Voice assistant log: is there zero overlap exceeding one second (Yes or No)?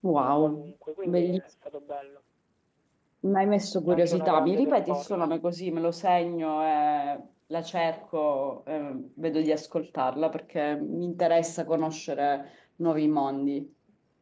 No